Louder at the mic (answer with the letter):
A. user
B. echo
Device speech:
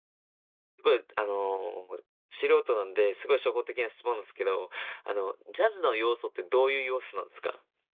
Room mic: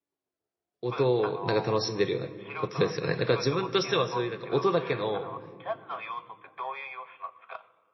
A